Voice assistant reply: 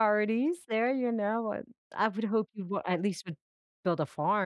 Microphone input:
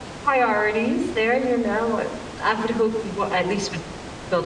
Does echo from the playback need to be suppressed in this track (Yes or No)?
Yes